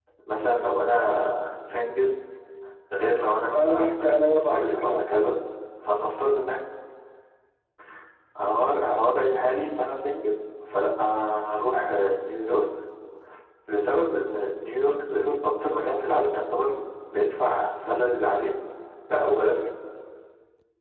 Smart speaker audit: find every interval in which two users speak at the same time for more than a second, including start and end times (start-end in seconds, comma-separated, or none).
3.5-5.1